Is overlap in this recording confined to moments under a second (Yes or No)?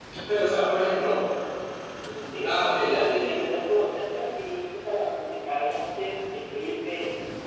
No